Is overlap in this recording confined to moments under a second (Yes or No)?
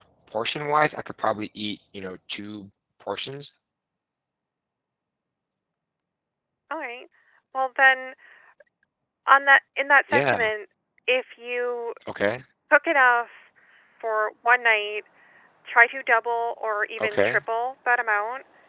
Yes